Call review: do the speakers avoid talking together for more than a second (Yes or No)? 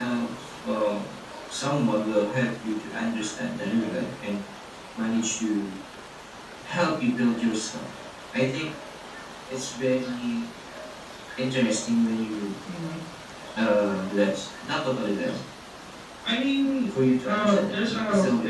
No